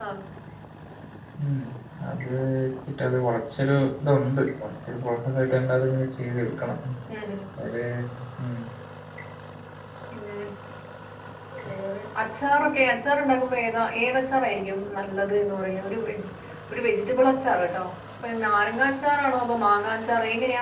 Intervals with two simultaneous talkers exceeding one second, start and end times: none

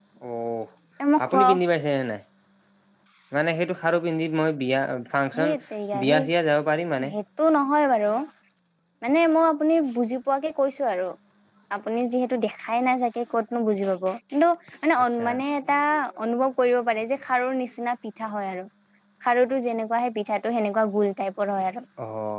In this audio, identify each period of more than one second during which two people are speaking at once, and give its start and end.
none

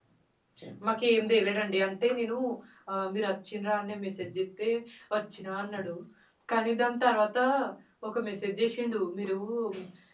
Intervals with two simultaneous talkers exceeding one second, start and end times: none

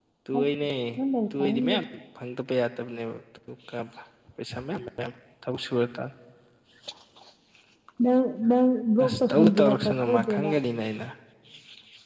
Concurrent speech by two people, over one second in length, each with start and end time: 9.0-10.5

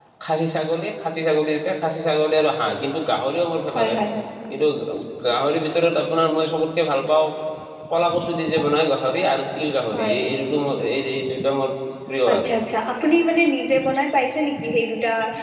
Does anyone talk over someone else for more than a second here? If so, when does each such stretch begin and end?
none

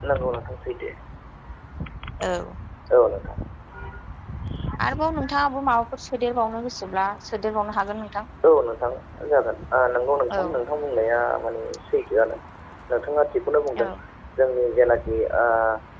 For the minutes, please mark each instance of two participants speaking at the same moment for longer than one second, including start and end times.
none

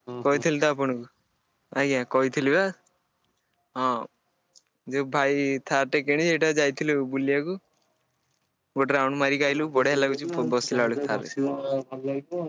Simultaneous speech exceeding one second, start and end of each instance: 9.6-11.3

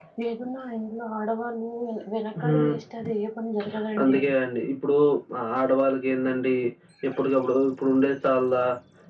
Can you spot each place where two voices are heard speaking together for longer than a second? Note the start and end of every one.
none

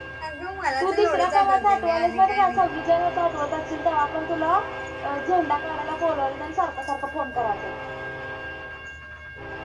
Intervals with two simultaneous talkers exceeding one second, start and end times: 0.8-2.6

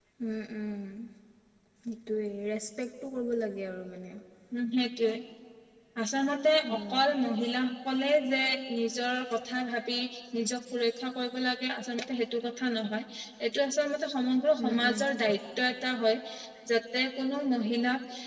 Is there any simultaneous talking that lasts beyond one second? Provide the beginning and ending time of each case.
none

